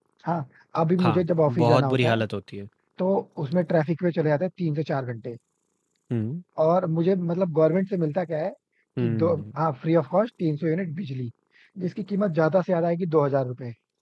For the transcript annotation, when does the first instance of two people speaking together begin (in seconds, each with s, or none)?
1.0 s